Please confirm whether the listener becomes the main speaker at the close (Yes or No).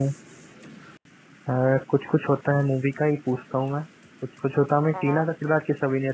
No